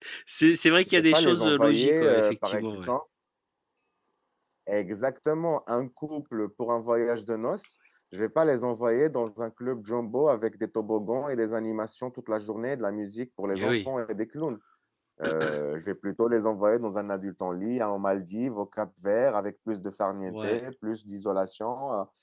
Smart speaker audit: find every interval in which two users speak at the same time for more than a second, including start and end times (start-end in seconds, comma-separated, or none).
1.0-2.9